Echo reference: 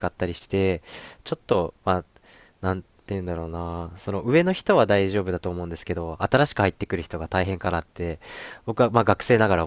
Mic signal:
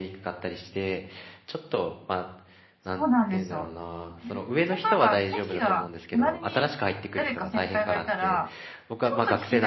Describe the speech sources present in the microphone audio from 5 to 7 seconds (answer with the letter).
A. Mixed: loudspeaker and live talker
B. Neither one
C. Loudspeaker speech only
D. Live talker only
A